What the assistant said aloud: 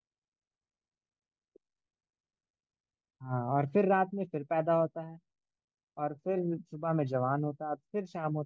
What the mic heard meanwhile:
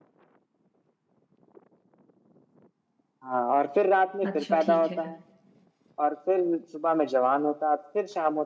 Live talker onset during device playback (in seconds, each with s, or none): 4.3 s